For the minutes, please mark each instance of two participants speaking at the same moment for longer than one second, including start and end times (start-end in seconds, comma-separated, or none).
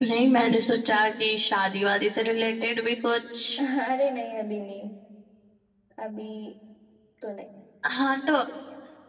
none